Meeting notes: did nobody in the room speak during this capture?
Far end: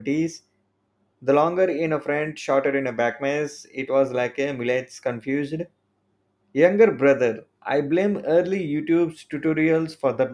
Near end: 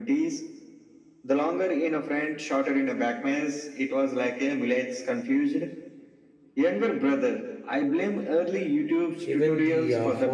No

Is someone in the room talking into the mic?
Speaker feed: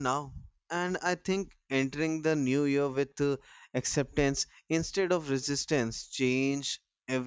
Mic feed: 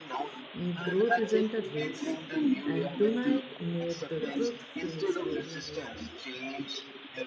Yes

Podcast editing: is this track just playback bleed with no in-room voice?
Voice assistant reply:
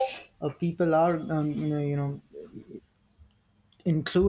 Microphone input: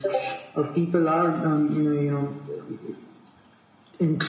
Yes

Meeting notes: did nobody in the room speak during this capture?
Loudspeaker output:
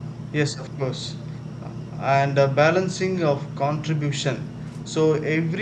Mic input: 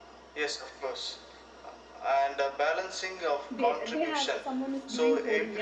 No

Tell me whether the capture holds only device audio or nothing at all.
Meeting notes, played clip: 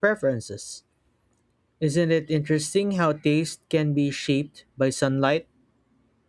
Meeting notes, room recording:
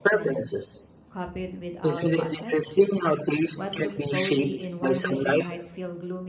No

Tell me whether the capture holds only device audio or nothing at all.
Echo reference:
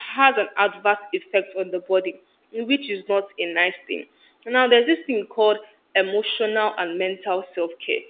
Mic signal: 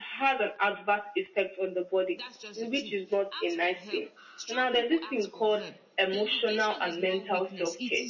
No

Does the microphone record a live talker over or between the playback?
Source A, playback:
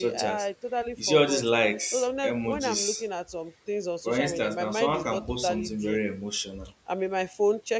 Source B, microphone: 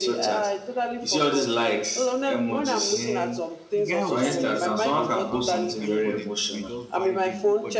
Yes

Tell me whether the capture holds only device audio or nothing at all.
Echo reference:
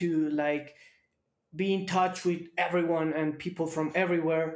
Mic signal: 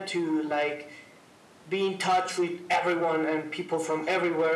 Yes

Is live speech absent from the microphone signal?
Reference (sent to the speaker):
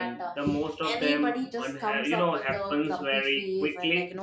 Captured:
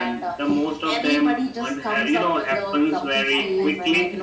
No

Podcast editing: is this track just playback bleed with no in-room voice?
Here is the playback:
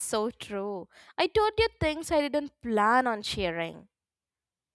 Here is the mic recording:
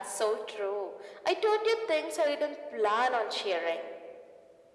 Yes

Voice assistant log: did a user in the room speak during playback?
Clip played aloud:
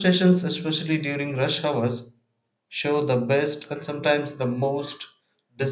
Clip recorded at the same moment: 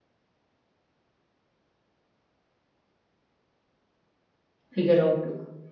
Yes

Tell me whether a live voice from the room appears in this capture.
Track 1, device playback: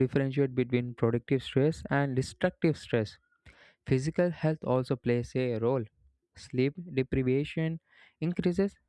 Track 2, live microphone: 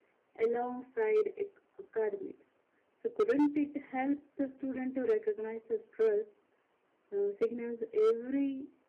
Yes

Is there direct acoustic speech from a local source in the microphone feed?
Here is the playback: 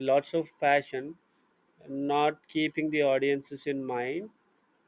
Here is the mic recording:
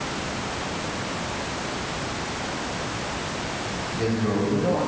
Yes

